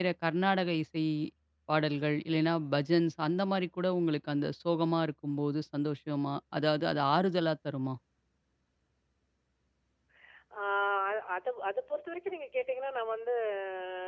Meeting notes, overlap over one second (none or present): none